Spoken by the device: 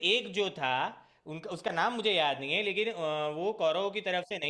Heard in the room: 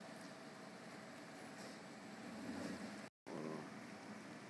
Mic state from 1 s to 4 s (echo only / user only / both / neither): neither